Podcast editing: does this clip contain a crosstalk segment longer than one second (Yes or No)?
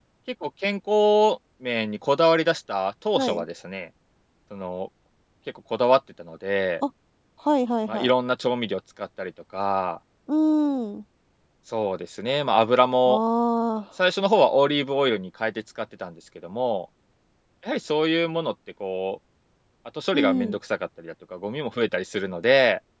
No